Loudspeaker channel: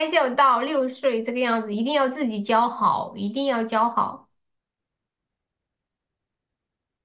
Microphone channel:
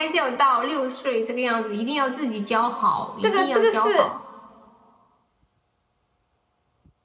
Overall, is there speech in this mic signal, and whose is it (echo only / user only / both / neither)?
both